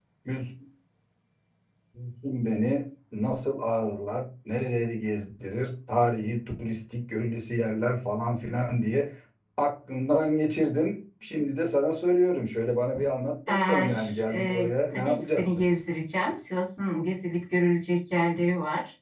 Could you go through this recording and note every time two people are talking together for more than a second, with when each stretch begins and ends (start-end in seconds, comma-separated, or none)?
13.5-15.8